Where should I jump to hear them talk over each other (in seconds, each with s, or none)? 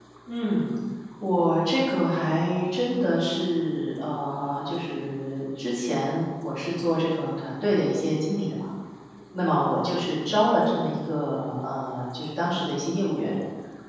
none